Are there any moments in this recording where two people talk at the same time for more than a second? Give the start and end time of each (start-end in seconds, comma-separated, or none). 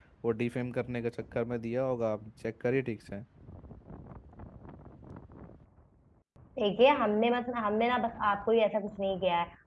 none